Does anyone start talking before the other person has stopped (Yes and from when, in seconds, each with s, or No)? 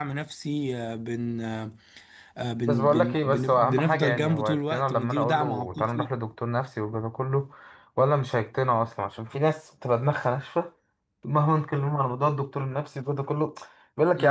Yes, from 2.7 s